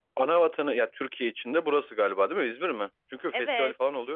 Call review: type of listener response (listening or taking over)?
taking over